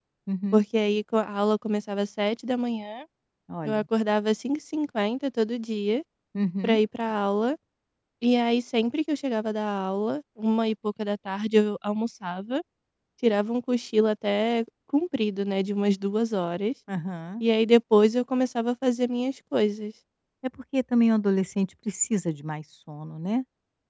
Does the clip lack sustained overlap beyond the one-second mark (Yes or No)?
Yes